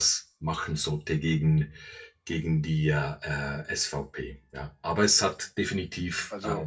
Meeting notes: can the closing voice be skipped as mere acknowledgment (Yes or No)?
Yes